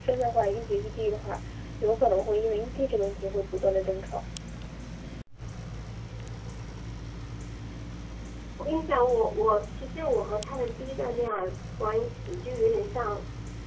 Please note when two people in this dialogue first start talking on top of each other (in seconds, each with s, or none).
none